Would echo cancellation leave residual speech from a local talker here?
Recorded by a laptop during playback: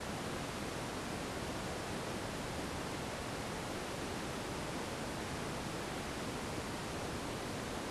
No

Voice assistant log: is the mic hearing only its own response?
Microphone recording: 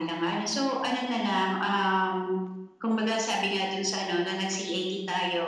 Yes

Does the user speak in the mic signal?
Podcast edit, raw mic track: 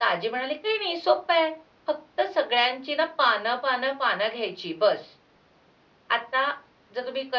No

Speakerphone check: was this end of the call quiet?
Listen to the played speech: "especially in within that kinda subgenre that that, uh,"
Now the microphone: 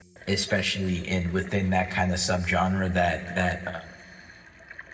Yes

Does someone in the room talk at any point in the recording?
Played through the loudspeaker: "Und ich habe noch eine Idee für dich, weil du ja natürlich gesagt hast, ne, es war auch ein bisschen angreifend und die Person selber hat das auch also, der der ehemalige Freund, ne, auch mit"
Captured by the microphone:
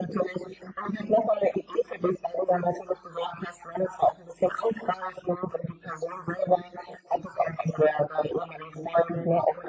No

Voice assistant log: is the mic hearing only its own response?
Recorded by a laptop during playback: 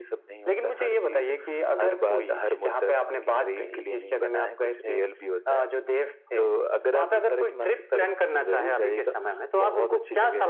Yes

